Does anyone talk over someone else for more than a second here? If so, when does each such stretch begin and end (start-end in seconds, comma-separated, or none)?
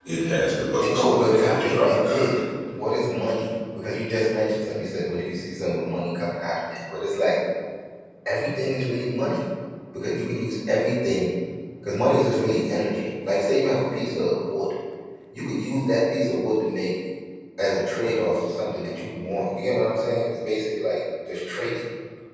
0.8-2.3